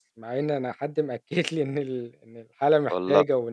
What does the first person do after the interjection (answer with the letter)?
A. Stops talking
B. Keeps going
B